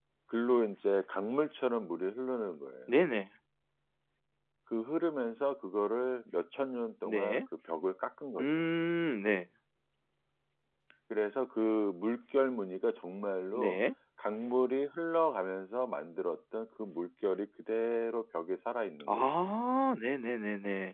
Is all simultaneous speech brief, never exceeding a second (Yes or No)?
Yes